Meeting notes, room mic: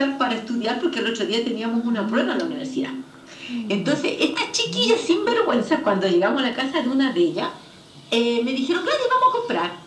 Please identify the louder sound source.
echo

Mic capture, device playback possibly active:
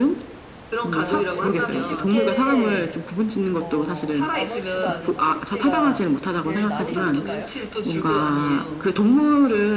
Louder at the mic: echo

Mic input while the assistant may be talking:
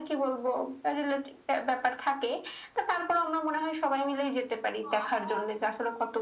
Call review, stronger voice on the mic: echo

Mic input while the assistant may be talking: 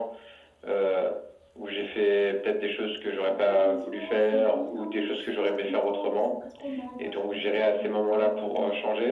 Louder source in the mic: echo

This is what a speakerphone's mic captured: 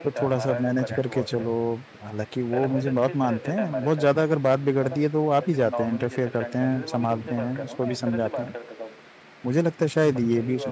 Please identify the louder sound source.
user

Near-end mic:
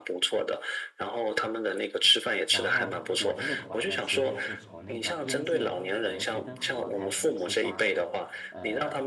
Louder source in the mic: echo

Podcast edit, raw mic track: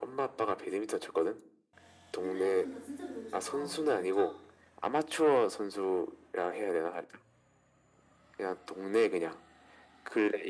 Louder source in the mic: echo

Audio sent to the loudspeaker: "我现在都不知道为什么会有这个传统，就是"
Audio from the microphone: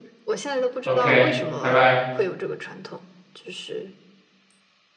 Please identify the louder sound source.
user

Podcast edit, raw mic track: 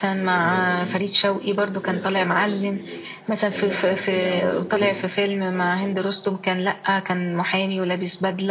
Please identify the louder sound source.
echo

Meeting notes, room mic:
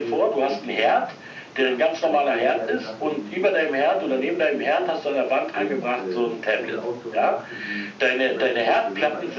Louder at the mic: echo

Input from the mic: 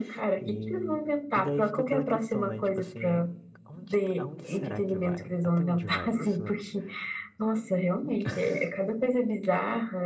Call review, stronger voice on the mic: echo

